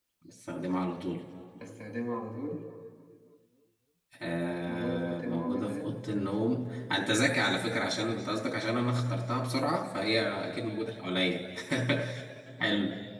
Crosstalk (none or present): present